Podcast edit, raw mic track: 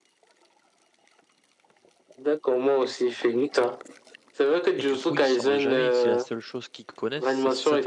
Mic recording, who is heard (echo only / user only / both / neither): both